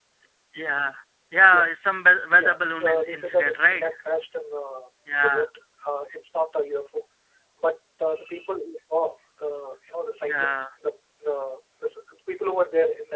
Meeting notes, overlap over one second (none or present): present